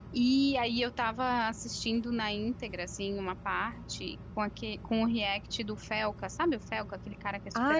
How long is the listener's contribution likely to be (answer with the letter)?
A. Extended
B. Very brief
A